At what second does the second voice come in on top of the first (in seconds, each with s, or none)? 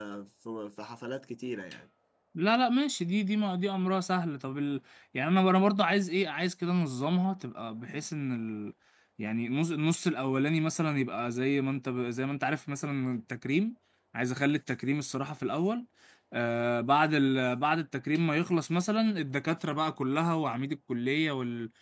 none